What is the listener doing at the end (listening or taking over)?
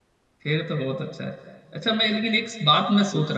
listening